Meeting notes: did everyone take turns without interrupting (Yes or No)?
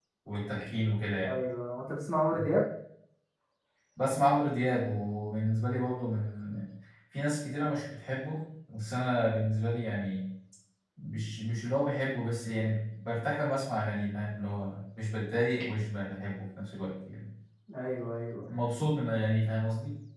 Yes